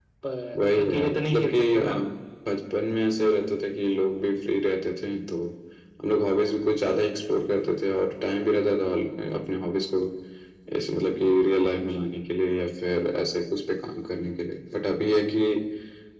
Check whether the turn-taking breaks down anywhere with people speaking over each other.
Yes, from 0.7 s

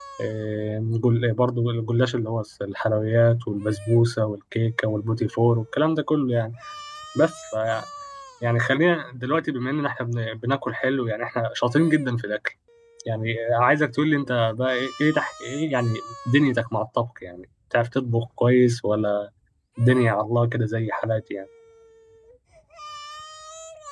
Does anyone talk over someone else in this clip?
No

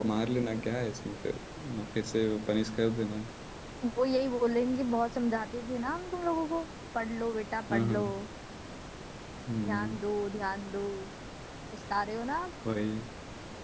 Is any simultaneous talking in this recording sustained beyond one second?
No

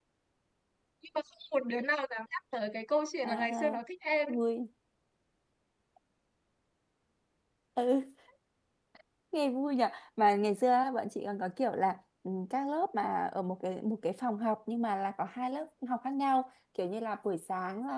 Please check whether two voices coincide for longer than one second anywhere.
No

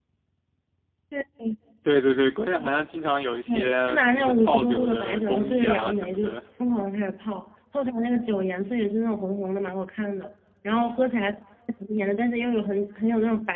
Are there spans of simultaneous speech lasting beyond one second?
Yes, from 3.5 s

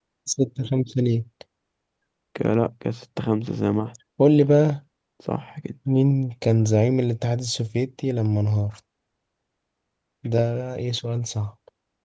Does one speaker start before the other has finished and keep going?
No

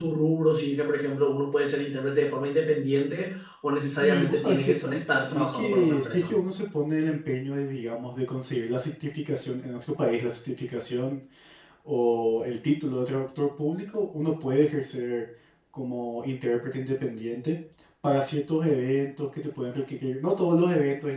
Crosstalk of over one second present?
Yes, from 4.0 s

